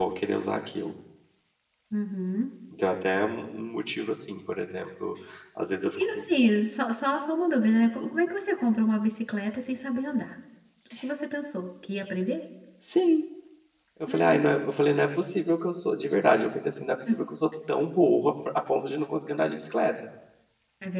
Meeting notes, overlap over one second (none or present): none